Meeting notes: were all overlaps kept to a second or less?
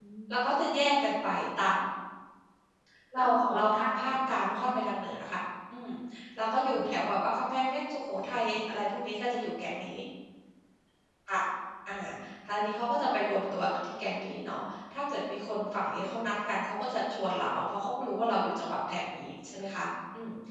No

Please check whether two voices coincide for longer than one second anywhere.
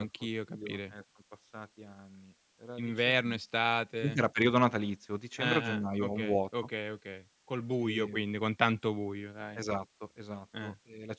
Yes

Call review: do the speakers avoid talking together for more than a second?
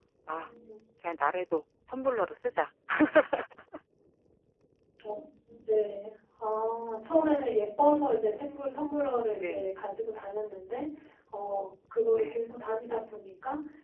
Yes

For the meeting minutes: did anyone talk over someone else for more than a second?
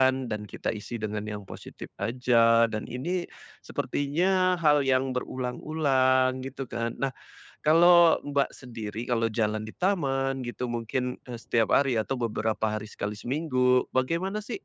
No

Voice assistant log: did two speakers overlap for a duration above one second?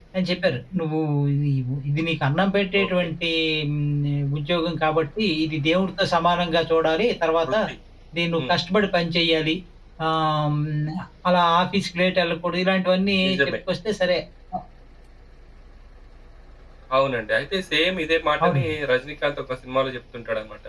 No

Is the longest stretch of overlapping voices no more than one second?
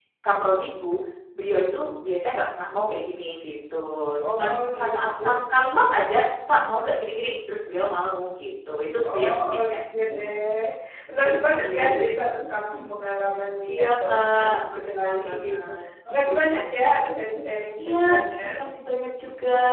No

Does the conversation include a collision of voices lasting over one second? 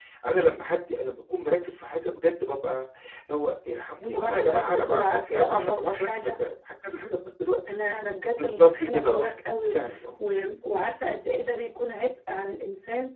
Yes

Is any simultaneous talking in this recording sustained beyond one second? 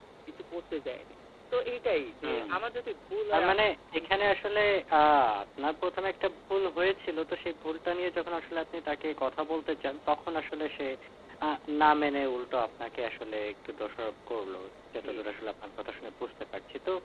No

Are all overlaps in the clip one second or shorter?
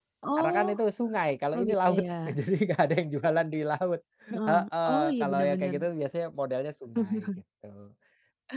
No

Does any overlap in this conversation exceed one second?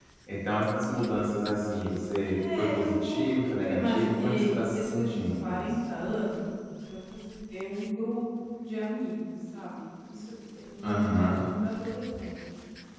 Yes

